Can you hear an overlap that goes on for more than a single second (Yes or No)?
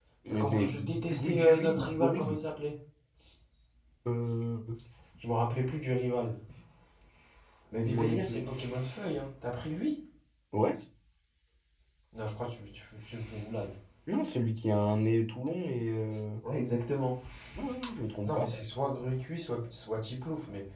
Yes